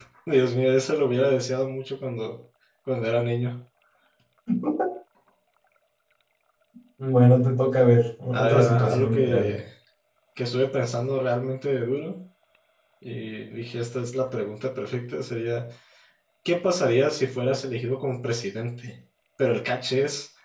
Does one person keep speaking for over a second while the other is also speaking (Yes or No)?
Yes